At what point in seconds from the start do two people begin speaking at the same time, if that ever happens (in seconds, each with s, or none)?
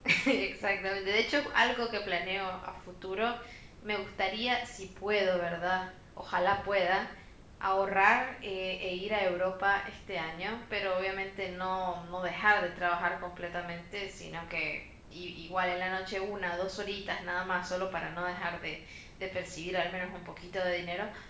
none